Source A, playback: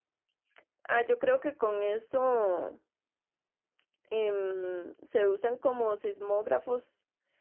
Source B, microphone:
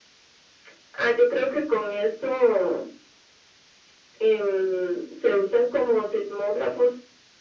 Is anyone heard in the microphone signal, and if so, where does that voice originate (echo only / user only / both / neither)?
echo only